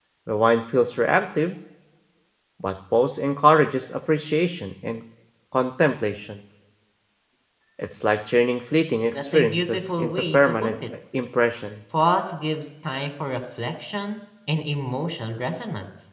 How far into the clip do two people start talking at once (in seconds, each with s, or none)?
9.1 s